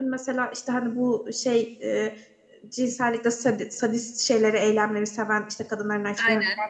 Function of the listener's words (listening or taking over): listening